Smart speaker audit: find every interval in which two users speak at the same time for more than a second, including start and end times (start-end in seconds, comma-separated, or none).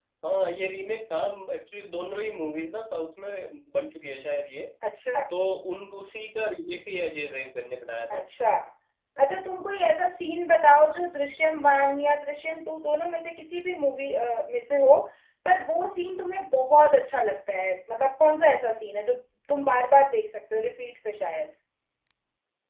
none